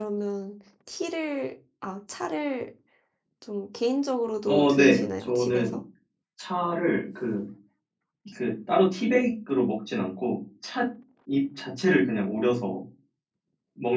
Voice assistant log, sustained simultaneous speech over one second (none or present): present